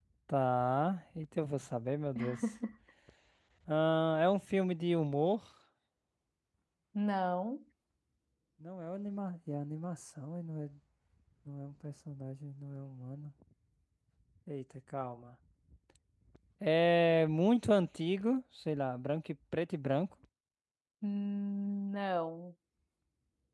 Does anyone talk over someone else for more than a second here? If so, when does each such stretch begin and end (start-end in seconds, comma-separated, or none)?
none